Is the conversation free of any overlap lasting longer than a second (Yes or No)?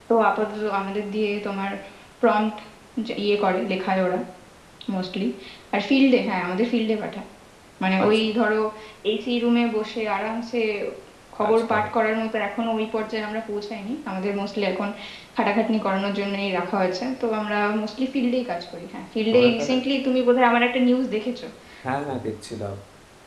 Yes